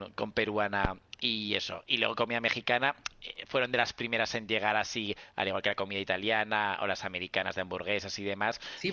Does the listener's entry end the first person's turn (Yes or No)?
Yes